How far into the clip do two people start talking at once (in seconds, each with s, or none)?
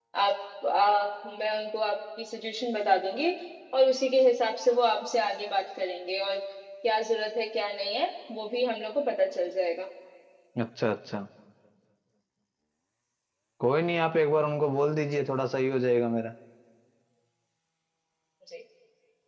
none